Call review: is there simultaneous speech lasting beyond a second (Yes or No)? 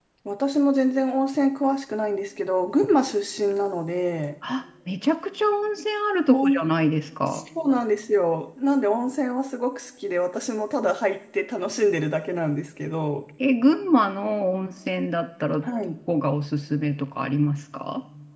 No